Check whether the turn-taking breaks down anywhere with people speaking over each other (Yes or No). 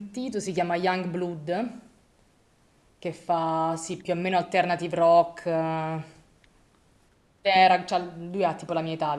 No